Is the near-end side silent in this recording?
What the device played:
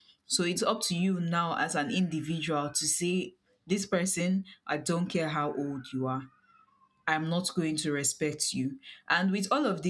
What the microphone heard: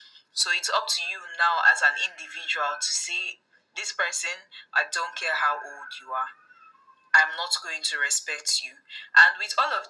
Yes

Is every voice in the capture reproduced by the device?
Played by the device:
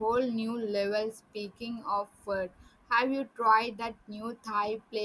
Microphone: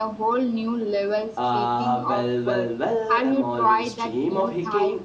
No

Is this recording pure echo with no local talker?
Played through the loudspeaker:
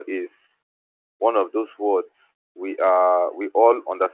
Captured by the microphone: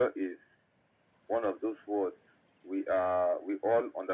Yes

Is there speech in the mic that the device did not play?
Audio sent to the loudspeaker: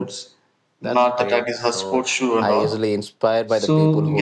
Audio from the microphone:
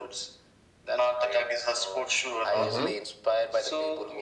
Yes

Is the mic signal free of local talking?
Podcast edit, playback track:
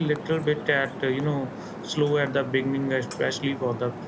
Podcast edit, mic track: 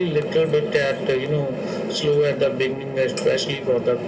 Yes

